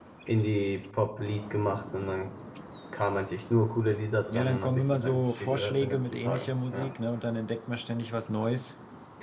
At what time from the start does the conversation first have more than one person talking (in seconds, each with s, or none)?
4.3 s